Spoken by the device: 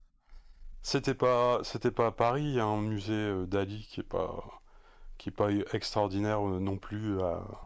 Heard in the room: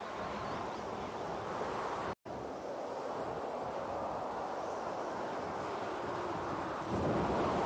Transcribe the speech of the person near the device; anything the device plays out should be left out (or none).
none